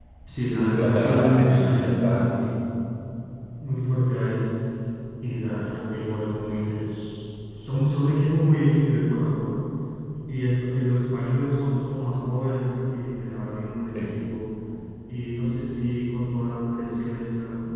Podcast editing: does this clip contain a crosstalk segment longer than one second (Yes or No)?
Yes